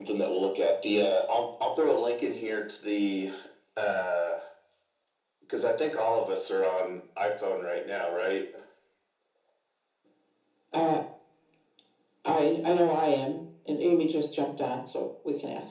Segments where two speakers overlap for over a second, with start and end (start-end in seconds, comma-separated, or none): none